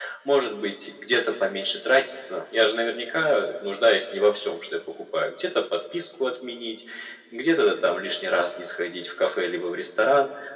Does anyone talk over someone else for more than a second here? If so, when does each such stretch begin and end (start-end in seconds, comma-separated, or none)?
none